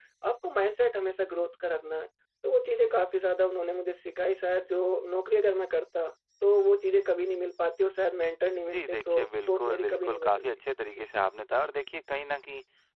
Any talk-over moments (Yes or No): Yes